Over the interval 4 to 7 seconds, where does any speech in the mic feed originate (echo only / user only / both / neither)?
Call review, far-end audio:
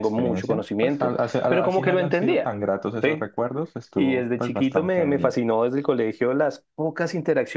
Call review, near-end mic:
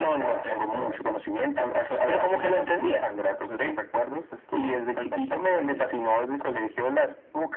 echo only